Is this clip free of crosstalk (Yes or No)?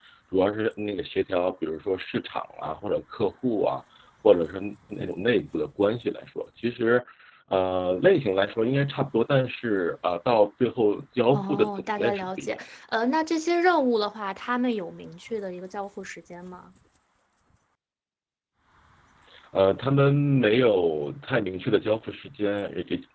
No